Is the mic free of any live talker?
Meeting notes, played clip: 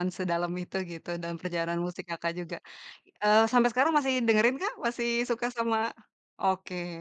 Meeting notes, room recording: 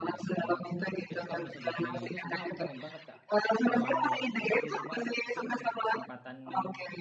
No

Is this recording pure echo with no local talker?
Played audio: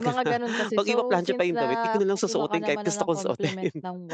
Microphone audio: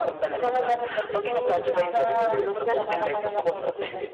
No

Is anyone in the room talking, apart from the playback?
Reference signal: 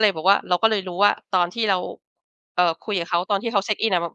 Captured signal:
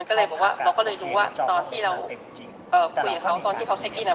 Yes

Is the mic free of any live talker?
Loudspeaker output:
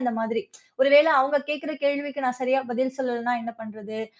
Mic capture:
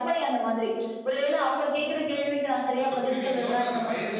No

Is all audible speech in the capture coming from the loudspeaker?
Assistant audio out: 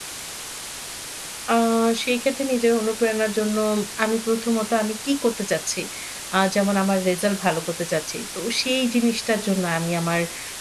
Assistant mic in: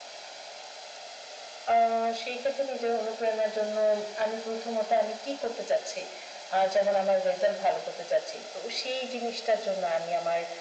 Yes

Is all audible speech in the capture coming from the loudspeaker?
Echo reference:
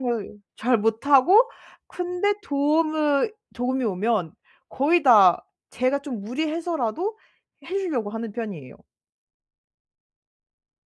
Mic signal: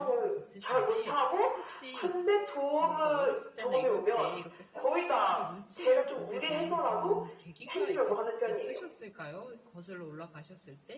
No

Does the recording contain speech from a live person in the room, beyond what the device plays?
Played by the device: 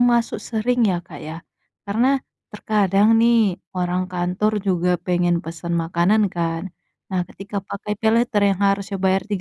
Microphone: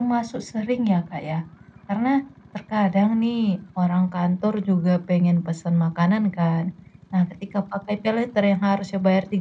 No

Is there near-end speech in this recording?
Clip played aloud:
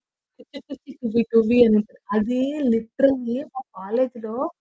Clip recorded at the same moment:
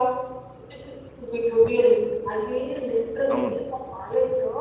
Yes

